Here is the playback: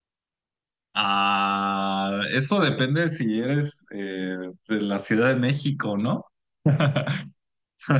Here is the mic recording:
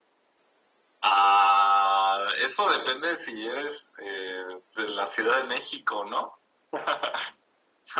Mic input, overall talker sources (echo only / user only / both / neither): echo only